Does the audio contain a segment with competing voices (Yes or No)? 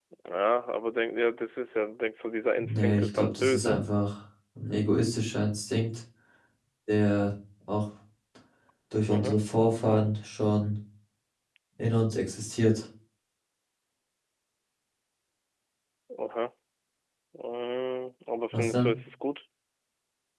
Yes